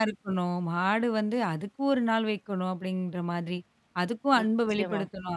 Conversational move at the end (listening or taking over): listening